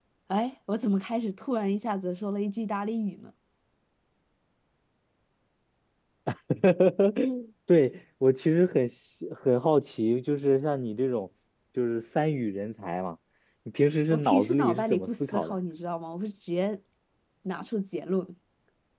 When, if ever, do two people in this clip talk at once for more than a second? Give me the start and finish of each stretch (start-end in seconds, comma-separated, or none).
14.1-15.6